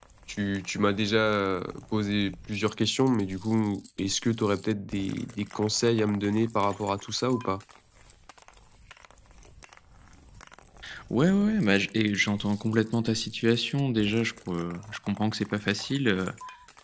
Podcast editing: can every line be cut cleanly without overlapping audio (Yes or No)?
Yes